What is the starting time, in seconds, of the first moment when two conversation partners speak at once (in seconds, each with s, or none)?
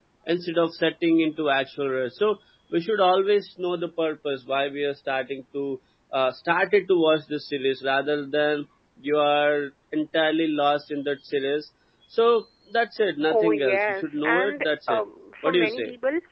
13.3 s